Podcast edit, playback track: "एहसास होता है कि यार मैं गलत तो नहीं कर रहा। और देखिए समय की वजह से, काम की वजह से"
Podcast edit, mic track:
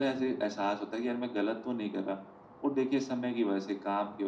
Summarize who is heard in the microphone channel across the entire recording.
echo only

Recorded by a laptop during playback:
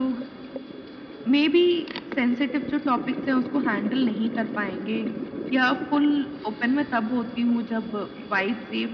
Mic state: echo only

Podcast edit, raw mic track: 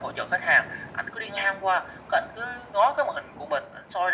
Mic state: echo only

